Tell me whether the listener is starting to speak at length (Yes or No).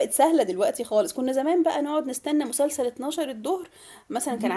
Yes